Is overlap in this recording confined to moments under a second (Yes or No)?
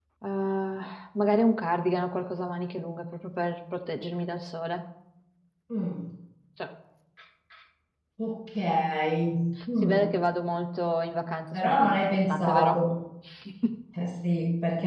No